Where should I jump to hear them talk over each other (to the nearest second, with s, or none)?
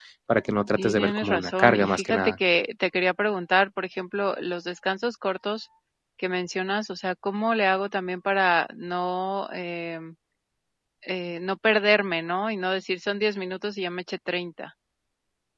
1 s